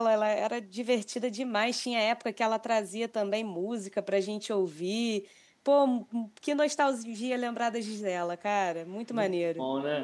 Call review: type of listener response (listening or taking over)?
taking over